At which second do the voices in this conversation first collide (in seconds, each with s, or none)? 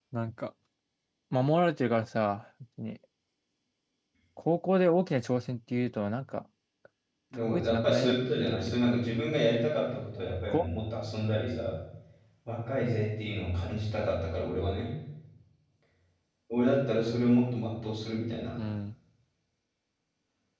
7.5 s